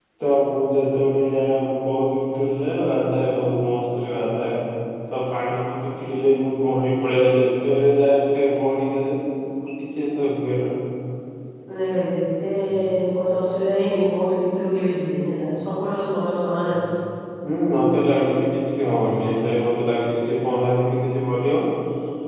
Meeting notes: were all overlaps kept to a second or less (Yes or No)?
Yes